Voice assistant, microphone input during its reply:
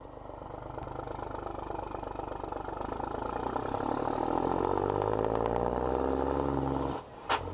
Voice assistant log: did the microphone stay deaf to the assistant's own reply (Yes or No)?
Yes